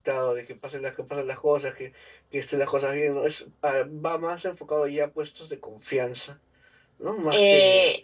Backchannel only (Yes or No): No